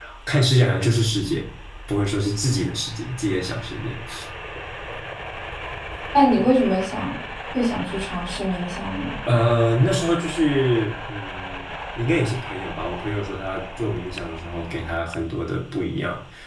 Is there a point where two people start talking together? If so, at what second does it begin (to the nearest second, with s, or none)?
none